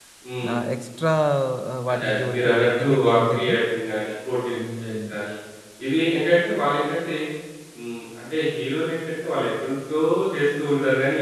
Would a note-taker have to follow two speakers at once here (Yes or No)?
Yes